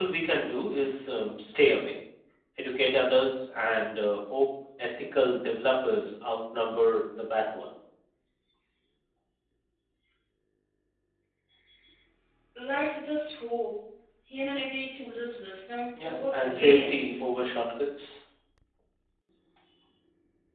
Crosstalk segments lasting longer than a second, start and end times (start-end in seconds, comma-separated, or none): 16.0-17.3